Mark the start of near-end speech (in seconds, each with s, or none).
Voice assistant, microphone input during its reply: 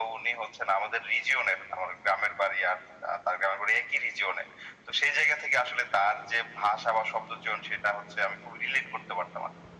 none